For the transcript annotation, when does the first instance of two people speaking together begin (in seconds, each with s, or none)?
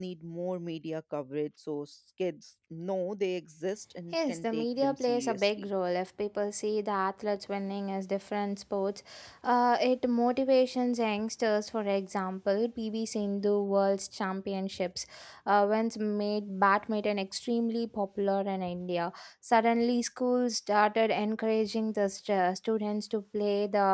4.1 s